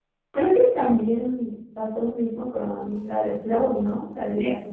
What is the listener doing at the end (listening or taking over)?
taking over